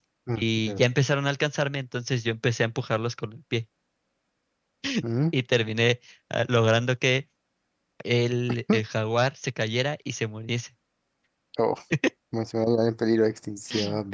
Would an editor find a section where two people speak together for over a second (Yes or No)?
No